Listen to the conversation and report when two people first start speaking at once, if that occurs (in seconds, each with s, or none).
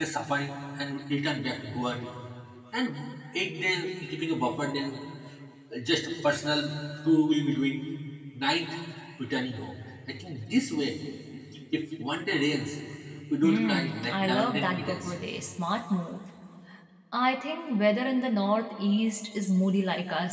13.4 s